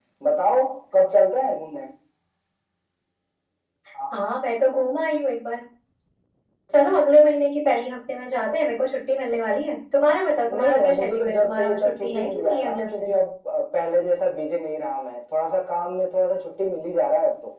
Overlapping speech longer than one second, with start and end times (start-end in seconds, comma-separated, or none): 10.6-13.1